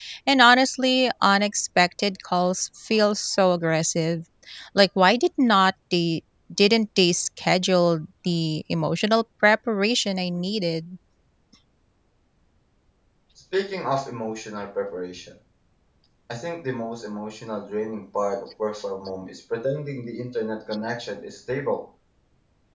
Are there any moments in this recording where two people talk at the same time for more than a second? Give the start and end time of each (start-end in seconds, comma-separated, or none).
none